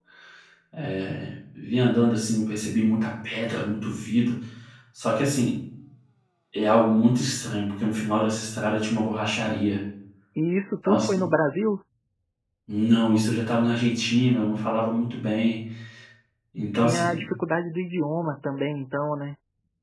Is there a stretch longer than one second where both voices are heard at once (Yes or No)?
No